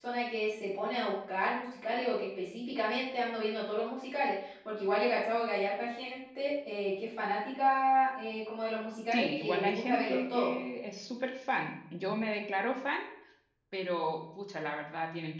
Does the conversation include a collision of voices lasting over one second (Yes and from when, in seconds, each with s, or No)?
Yes, from 9.1 s